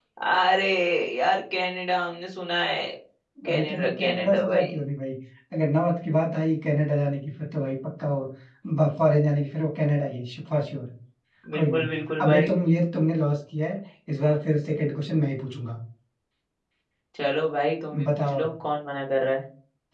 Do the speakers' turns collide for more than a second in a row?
Yes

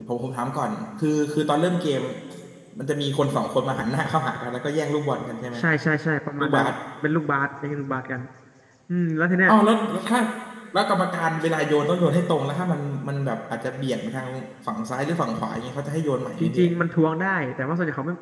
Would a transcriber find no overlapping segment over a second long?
Yes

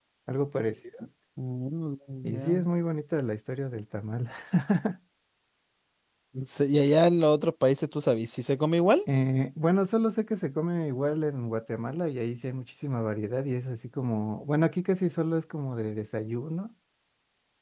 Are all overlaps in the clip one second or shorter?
Yes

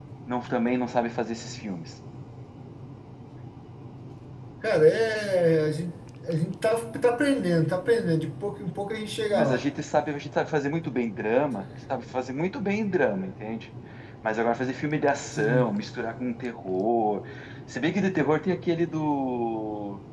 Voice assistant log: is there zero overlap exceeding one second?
Yes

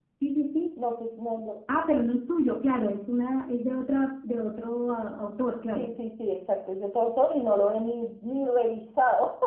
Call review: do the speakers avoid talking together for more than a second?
Yes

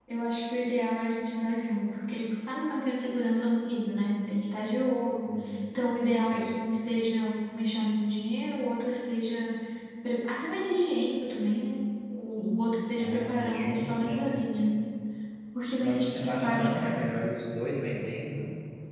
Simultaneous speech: Yes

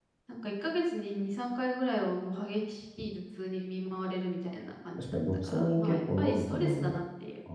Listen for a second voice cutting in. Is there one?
Yes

